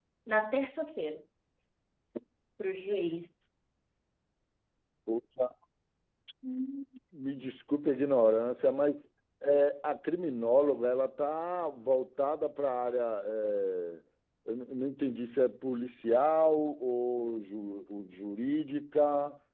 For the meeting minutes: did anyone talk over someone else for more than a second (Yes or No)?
No